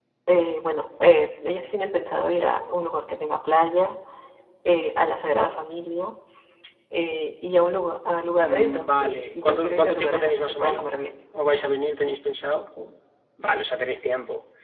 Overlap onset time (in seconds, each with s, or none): 8.4 s